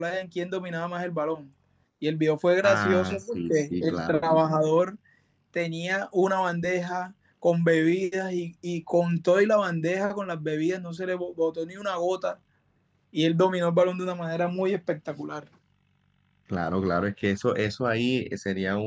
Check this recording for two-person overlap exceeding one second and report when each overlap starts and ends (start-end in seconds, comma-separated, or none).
2.6-4.2